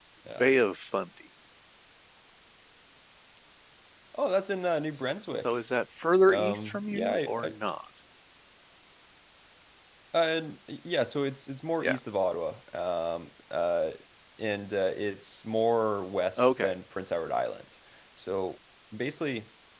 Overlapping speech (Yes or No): Yes